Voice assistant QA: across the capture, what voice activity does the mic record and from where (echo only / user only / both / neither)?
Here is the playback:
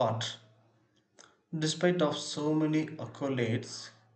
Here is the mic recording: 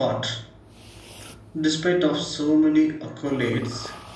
echo only